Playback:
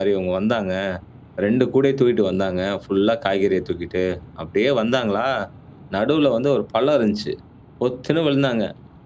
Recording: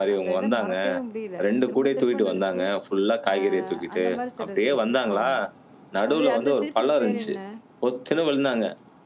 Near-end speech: present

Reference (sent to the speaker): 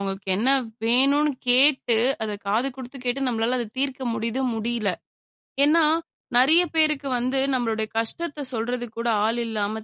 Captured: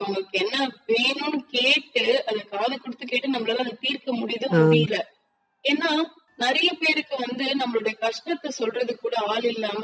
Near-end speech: present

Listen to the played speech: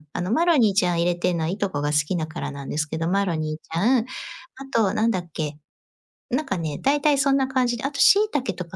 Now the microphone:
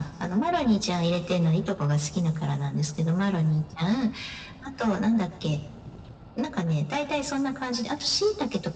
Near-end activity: none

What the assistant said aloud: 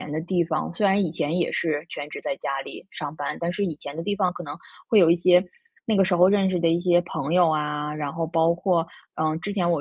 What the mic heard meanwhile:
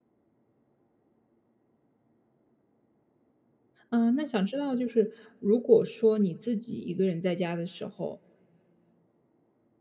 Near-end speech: present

